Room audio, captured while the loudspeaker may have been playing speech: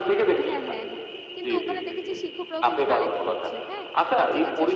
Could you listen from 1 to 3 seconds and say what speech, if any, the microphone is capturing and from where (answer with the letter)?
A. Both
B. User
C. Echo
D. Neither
A